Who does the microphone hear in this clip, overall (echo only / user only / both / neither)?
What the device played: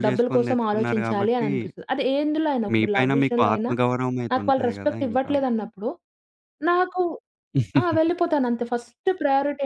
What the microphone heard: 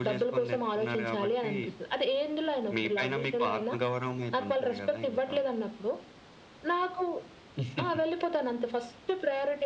echo only